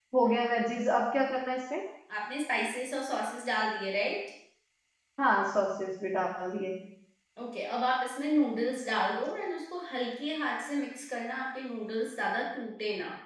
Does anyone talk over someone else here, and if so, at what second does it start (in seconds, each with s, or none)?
none